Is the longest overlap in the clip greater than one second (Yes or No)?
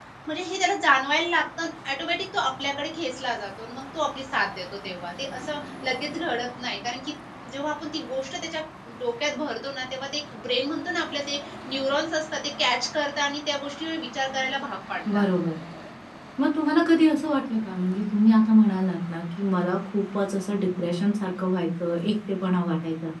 No